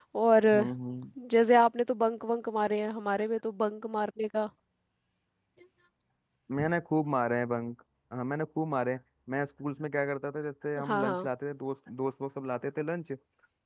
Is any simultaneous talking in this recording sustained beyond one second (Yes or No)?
No